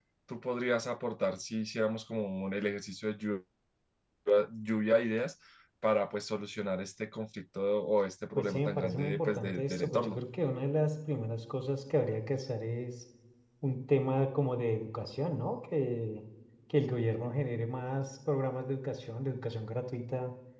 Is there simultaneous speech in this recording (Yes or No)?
Yes